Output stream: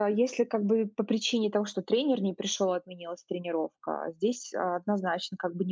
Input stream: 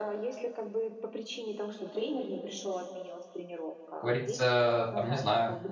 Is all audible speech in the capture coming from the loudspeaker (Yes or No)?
No